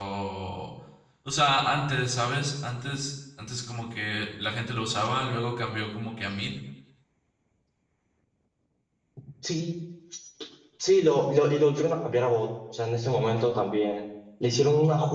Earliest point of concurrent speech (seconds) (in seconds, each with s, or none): none